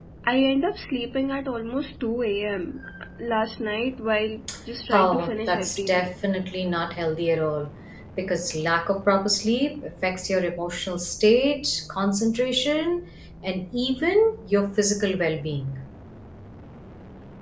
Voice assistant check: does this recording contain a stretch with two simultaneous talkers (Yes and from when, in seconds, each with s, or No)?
Yes, from 4.9 s